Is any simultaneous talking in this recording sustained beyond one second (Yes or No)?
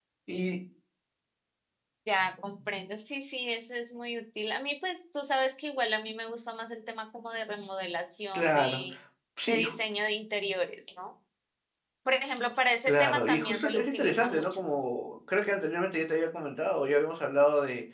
Yes